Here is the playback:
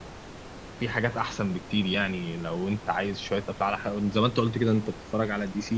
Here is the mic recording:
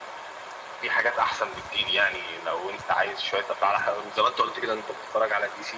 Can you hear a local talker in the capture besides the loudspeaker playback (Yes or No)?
No